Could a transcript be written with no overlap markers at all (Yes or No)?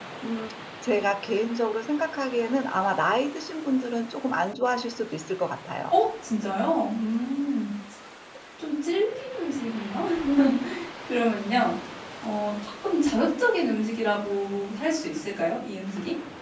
Yes